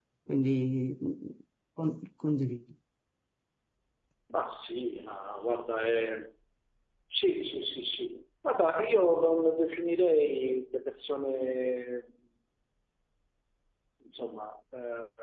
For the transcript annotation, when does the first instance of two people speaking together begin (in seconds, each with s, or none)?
none